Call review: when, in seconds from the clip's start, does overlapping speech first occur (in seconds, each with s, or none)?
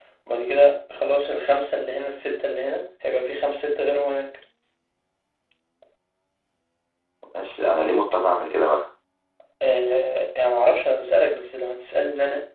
none